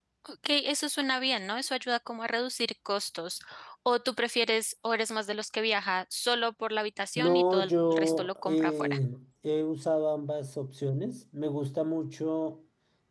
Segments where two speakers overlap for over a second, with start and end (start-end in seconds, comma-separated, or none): 7.2-9.0